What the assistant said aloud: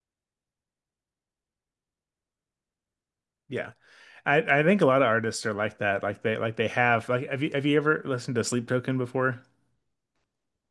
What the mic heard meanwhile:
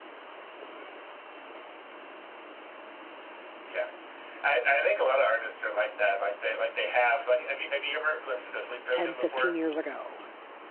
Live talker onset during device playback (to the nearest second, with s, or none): 9 s